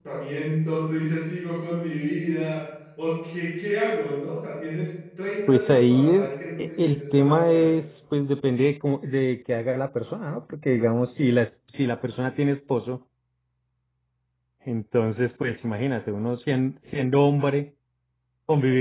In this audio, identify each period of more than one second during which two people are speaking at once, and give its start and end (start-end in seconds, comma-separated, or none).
5.5-7.7